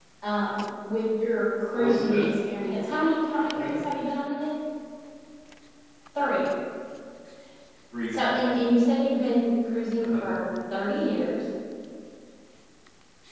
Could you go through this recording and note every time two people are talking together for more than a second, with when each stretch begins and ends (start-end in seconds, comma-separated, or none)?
none